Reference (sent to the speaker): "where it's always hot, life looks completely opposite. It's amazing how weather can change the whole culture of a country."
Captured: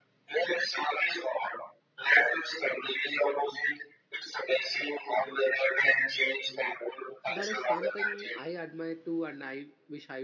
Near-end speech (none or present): present